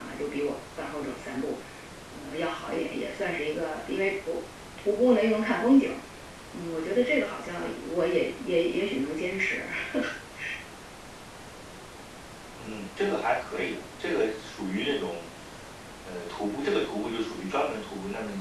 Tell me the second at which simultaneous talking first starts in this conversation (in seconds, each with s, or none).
none